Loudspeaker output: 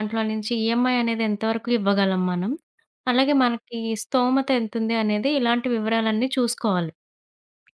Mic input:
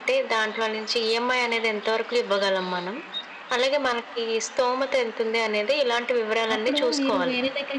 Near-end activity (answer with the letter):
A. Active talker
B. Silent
A